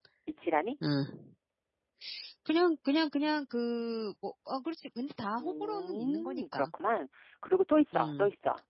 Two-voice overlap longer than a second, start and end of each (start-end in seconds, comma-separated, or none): 5.4-6.7